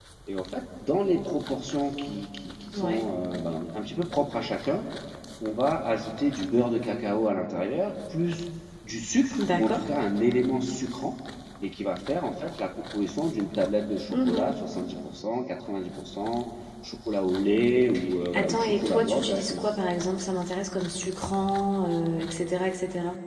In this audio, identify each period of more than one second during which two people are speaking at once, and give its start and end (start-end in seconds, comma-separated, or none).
18.3-19.6